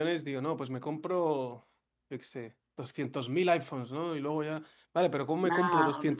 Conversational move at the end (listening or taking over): listening